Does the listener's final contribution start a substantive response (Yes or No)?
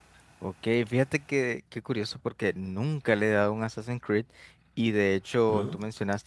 No